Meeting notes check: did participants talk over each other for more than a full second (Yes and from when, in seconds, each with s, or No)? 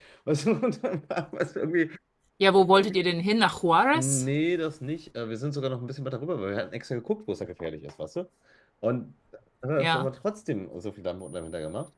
No